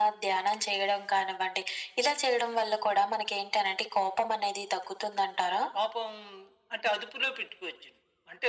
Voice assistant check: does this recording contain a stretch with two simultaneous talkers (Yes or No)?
No